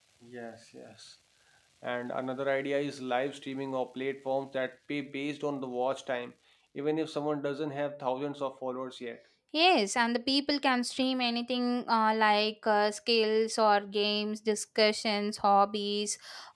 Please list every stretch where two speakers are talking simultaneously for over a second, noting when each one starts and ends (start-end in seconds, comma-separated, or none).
none